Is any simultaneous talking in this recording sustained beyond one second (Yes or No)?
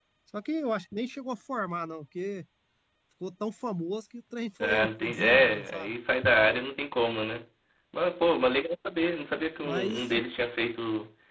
Yes